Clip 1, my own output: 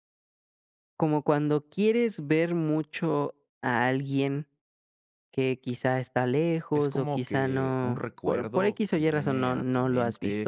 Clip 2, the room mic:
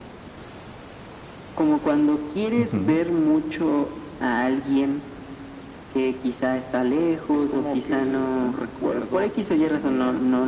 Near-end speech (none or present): present